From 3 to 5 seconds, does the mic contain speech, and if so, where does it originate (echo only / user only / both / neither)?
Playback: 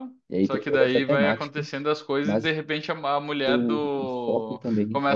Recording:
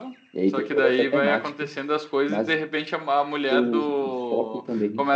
echo only